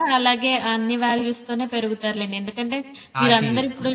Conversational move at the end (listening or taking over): listening